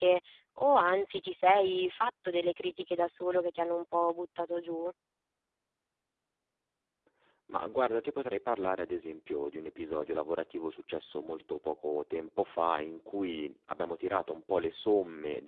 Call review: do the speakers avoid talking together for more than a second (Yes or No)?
Yes